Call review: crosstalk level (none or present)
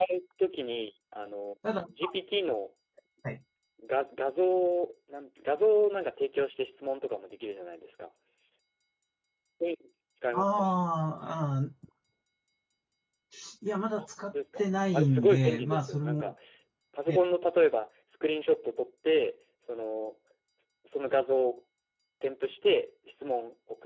present